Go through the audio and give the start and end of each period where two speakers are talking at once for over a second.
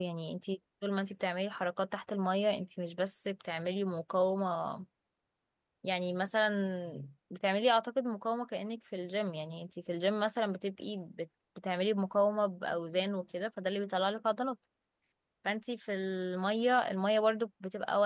none

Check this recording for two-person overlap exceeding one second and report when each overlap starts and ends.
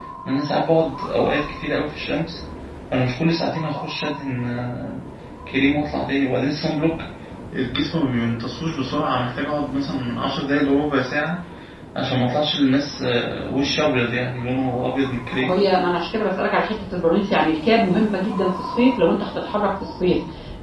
none

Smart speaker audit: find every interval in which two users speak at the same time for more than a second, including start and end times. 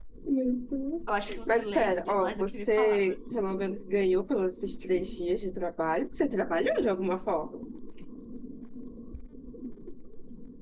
1.5-3.2

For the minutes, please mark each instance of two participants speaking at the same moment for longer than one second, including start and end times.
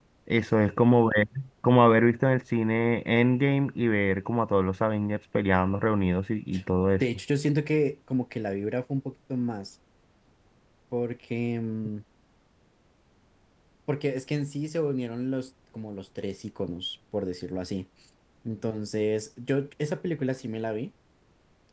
none

